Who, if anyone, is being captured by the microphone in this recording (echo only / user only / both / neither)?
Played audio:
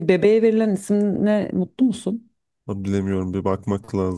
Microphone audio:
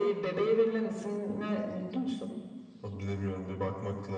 echo only